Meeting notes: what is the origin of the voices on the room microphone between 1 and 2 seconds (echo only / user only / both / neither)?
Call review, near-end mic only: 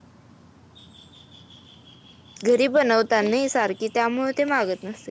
neither